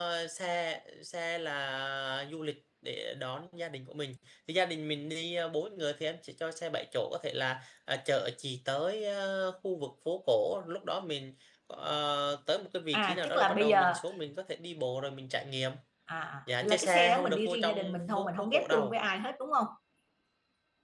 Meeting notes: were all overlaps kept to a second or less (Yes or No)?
No